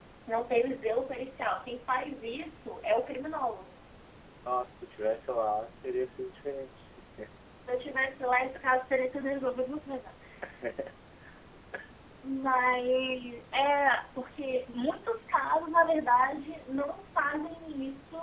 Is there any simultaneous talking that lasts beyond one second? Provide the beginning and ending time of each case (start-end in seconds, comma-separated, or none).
none